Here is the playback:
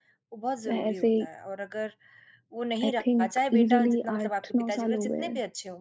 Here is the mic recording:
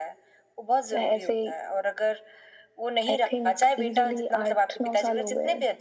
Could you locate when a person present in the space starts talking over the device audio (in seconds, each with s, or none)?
none